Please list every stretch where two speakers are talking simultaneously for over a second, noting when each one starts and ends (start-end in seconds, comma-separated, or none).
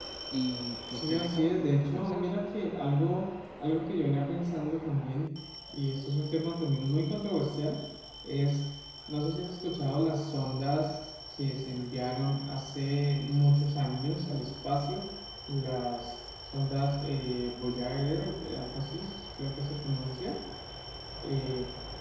0.9-2.2